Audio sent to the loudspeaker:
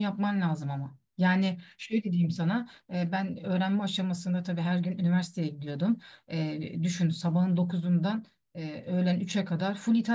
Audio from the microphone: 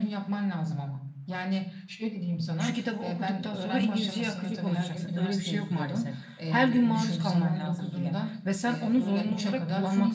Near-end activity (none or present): present